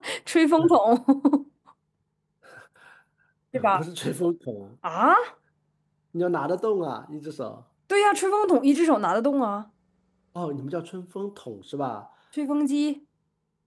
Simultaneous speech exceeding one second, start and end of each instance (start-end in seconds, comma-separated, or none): none